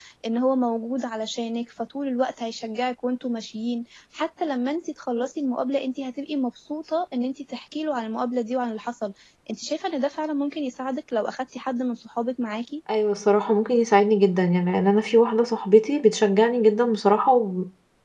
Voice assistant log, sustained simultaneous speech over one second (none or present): none